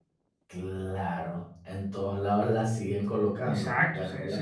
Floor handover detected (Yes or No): Yes